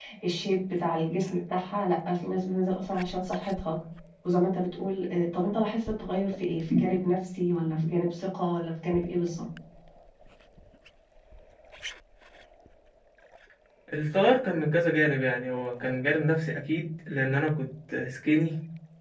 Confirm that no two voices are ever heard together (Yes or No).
Yes